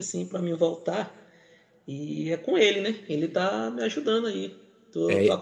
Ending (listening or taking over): listening